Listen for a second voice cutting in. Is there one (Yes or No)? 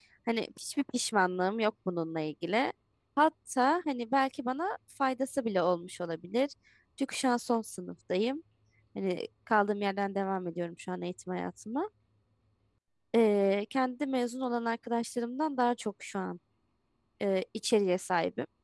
No